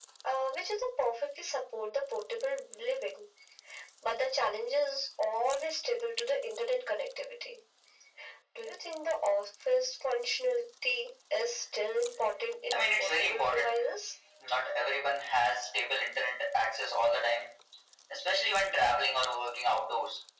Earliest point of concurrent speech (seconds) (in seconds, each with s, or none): 12.7 s